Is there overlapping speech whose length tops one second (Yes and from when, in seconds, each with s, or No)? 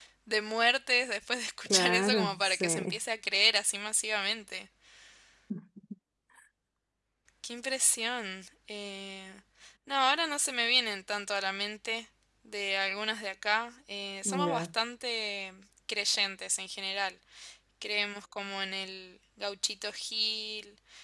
Yes, from 1.6 s